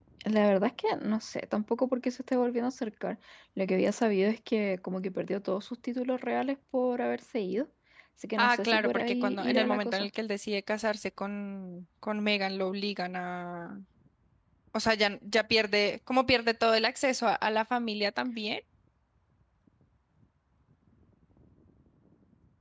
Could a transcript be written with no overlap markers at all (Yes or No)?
No